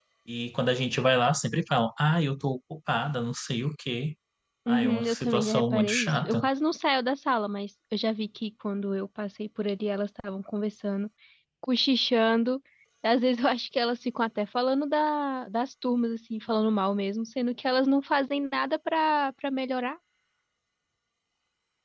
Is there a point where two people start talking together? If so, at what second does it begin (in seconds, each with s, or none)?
4.7 s